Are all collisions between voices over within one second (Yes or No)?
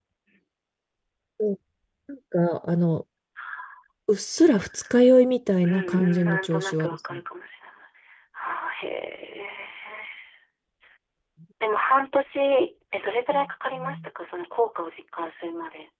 No